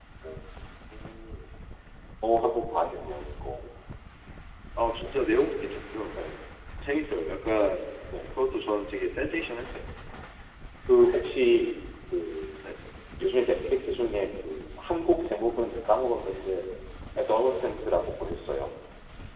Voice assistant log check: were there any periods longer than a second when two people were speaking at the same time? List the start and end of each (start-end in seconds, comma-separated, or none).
none